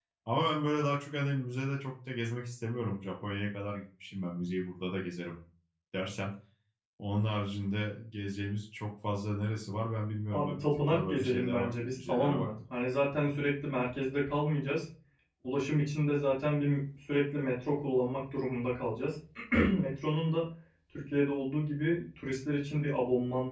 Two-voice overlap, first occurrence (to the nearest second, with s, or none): 10 s